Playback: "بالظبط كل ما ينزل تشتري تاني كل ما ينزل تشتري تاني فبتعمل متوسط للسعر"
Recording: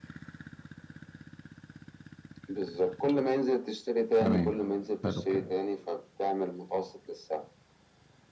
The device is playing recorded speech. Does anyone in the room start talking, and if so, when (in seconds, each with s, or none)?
4.2 s